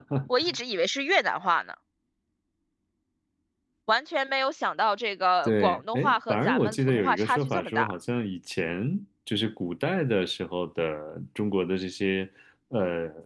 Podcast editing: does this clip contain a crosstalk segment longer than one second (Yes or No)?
Yes